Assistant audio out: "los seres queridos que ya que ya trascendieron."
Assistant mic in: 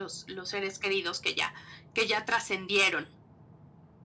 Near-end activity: none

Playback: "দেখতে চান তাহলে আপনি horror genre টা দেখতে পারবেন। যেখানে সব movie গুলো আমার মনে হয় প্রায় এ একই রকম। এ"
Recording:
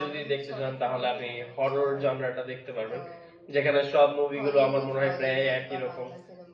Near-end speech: present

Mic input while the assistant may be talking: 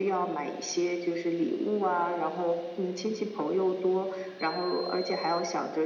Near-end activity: none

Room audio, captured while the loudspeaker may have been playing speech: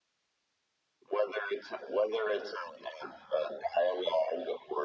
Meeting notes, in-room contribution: none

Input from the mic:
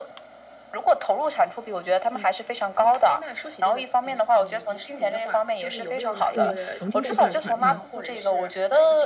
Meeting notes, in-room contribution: present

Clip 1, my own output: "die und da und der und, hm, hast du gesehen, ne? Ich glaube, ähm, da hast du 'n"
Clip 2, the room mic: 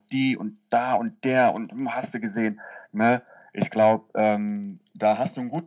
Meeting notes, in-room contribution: none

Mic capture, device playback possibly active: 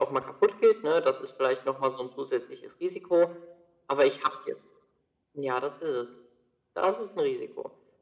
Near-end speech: none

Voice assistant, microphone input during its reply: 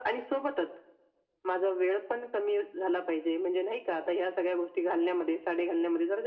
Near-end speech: none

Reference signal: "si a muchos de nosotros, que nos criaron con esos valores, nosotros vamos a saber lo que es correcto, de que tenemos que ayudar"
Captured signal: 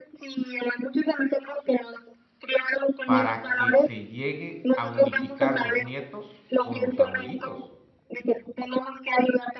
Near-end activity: present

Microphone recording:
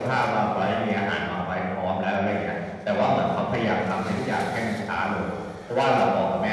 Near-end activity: none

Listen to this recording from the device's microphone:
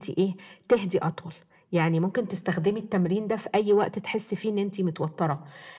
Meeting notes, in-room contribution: none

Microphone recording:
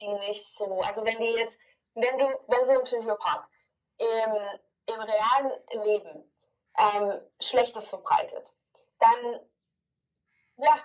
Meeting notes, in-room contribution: none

